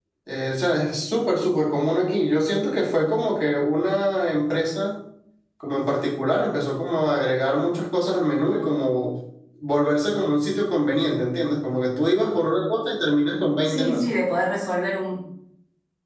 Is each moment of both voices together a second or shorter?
Yes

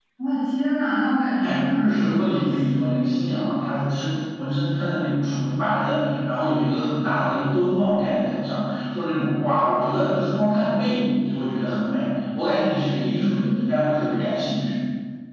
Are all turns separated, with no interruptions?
No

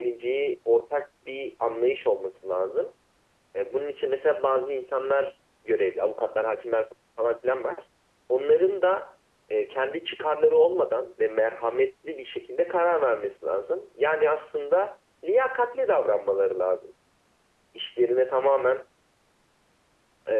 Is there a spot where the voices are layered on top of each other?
No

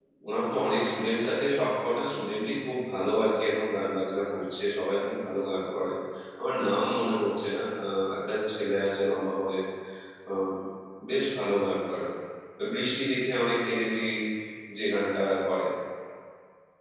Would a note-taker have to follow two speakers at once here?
No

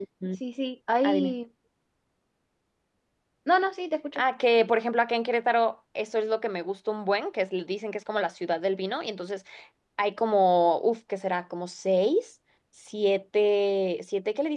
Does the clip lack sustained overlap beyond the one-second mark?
Yes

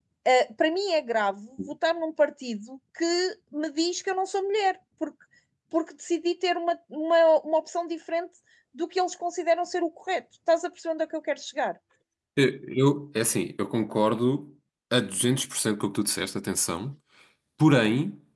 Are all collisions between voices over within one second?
Yes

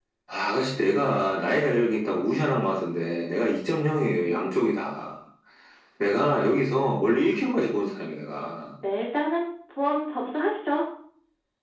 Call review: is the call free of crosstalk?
Yes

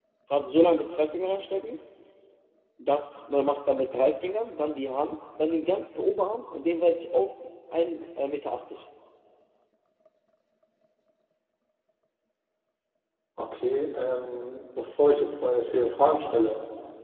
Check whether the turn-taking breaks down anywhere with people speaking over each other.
No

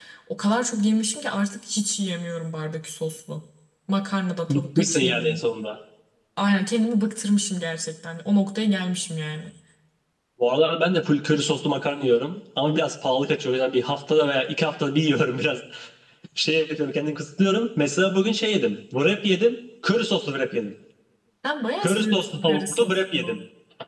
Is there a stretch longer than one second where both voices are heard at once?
Yes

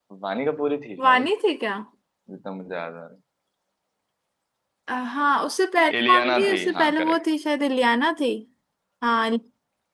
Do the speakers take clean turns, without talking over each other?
No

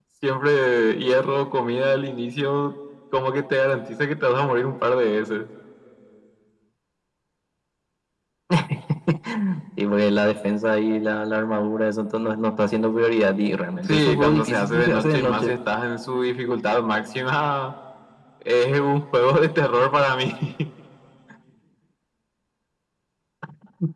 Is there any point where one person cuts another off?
Yes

